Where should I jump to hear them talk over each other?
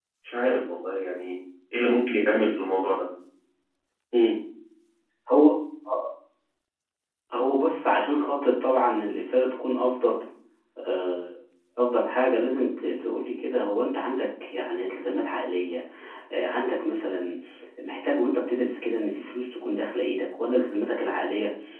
none

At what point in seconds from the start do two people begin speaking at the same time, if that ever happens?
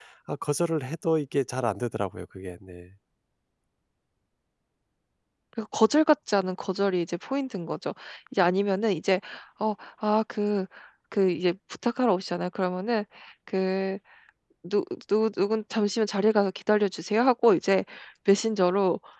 none

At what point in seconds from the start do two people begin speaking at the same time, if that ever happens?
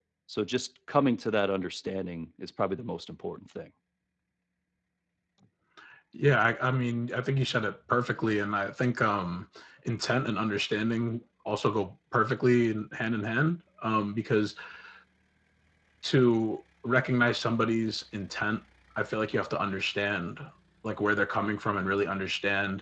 none

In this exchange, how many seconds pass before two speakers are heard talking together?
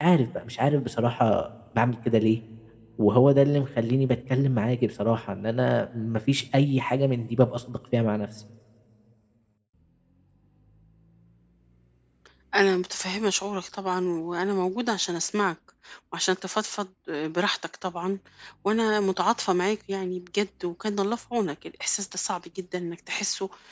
none

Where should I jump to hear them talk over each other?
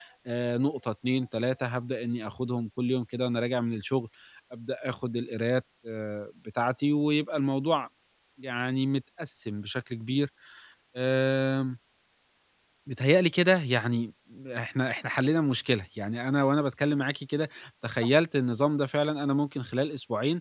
none

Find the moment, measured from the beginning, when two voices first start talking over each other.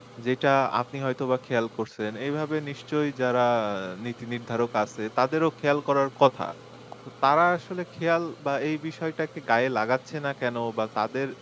none

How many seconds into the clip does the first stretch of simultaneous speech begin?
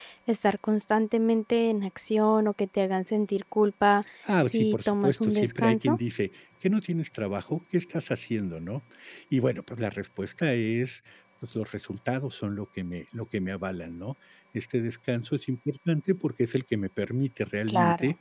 4.4 s

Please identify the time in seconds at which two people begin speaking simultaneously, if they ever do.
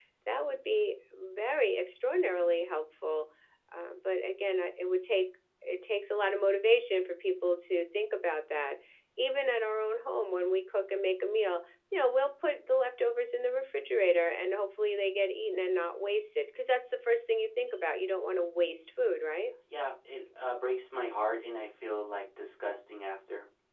none

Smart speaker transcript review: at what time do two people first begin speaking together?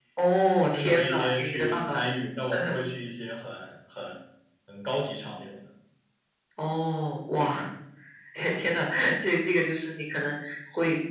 0.7 s

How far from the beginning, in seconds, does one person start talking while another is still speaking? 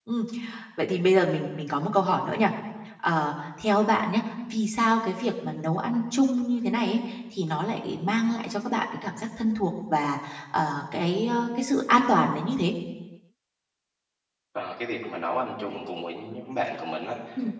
none

